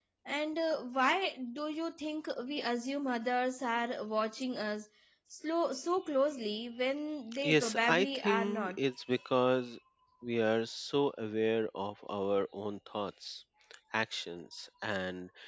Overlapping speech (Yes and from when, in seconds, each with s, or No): Yes, from 7.3 s